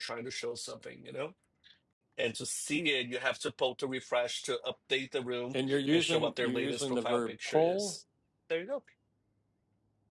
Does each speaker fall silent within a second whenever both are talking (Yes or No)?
No